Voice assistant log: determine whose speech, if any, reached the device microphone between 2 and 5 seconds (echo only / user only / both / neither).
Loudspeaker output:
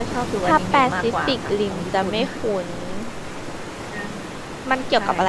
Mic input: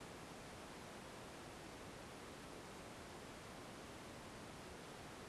neither